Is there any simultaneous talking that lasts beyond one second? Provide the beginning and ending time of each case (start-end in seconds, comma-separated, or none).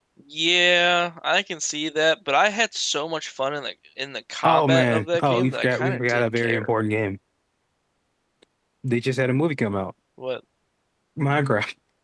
4.4-6.7